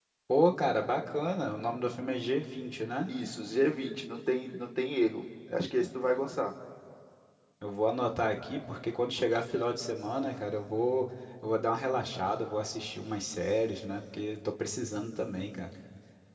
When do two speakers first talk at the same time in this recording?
none

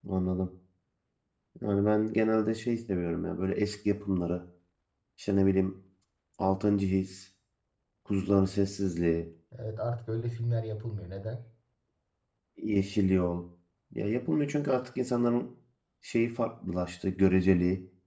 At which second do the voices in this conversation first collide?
none

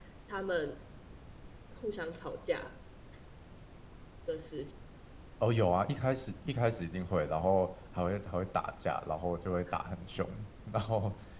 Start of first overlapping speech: none

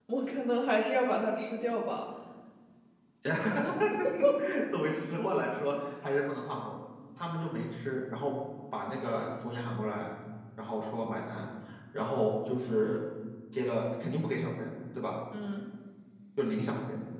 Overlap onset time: none

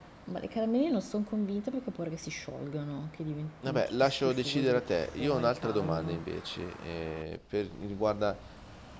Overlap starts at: 4 s

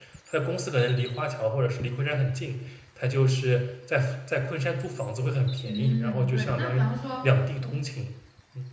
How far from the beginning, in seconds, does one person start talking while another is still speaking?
6 s

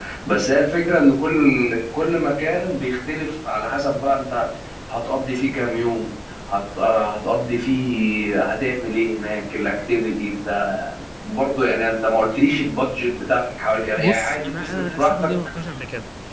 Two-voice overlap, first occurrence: 14 s

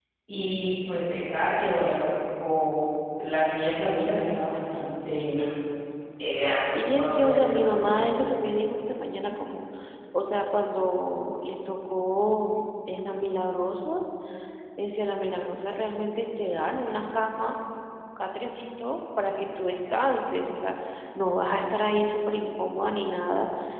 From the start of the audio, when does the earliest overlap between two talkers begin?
7 s

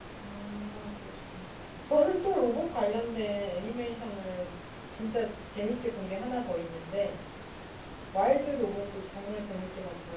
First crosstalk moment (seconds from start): none

